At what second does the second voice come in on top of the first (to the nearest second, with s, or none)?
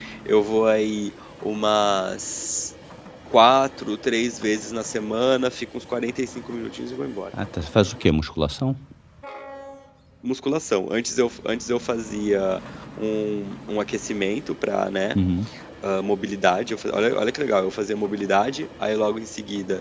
none